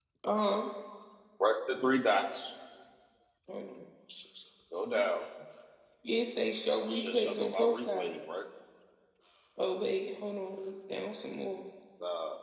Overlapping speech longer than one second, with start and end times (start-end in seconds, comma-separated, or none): 6.9-8.1